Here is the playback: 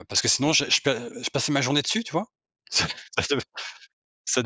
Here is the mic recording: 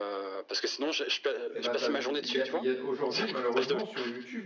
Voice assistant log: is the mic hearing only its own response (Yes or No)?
No